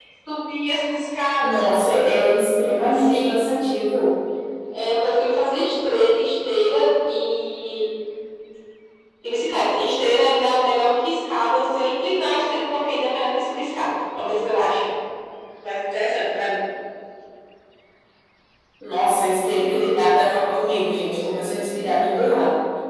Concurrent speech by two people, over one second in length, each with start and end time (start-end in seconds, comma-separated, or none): none